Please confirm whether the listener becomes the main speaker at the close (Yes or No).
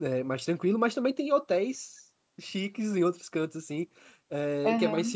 No